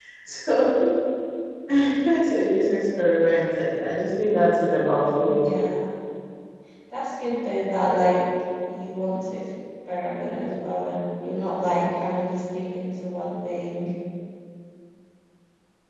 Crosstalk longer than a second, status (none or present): none